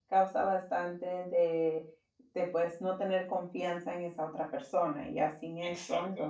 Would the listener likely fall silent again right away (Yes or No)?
Yes